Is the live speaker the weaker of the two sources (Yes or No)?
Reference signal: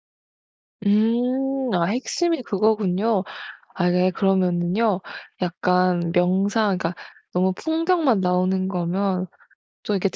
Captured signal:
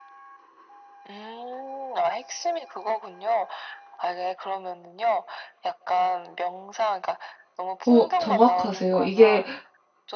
No